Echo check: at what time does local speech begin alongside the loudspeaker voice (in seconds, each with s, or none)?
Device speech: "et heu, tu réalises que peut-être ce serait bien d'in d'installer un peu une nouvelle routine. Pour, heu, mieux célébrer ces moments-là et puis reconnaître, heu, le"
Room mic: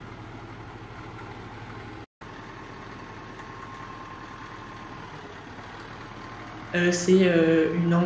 6.8 s